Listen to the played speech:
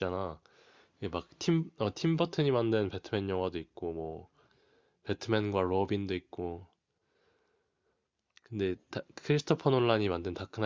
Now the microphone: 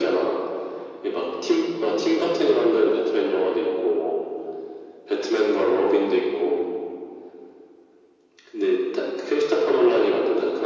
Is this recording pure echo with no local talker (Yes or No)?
Yes